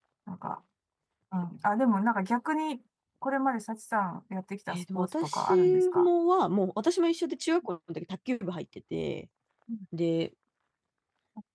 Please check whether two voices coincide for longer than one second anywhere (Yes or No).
Yes